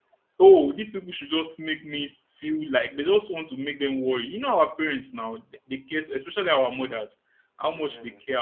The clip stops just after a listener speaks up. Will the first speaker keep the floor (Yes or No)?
Yes